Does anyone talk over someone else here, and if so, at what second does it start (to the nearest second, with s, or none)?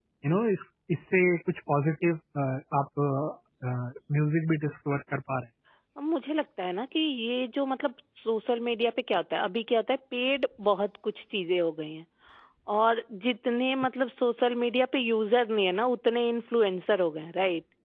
none